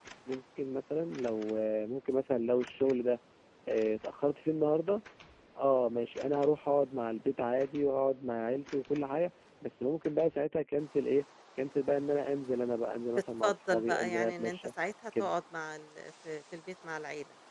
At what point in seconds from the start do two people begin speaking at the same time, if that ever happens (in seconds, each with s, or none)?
13.2 s